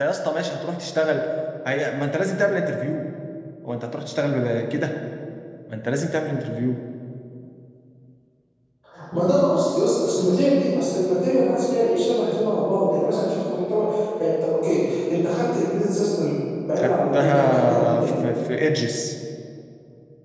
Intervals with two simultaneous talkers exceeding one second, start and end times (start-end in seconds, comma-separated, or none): 16.8-18.1